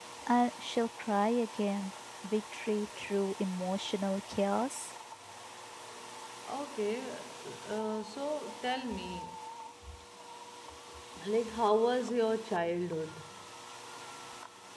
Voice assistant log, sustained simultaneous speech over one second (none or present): none